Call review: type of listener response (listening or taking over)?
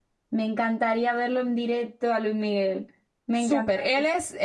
taking over